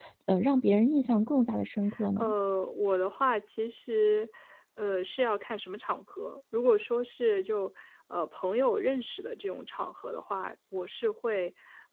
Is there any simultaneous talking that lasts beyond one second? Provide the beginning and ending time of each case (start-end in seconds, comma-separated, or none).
none